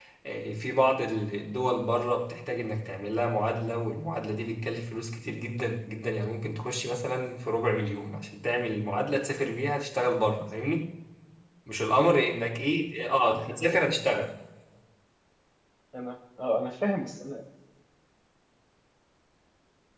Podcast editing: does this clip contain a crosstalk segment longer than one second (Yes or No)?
No